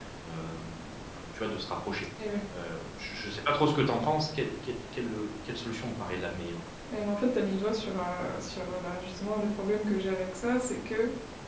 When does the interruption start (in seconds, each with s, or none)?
none